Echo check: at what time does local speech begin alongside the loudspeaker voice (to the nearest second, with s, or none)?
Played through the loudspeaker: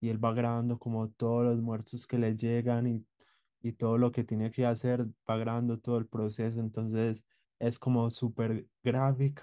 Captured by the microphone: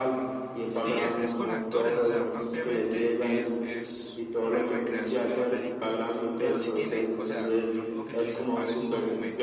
1 s